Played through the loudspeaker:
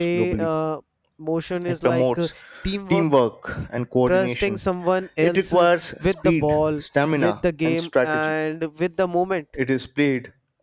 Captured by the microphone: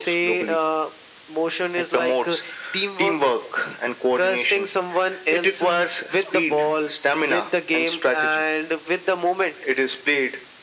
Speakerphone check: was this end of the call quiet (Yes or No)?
Yes